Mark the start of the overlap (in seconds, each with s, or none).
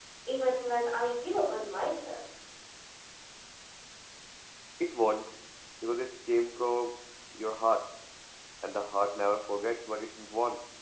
none